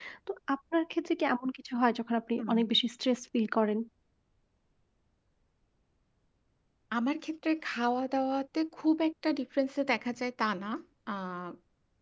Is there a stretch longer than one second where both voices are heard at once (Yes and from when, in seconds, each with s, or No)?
No